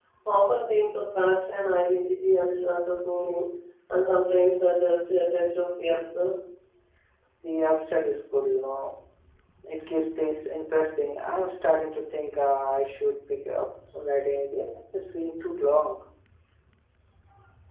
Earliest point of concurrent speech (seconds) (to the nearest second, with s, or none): none